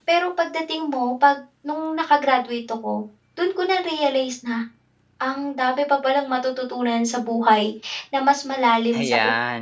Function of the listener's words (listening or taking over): listening